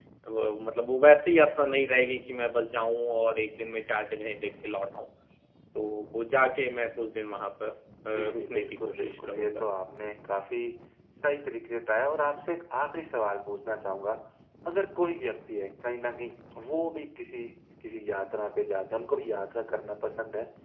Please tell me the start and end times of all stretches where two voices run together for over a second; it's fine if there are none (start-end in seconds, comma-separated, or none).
8.2-9.6